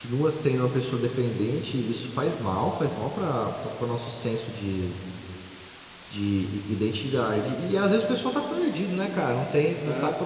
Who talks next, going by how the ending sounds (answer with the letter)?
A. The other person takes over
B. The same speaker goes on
B